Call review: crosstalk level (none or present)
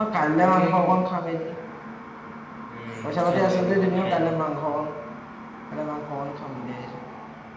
present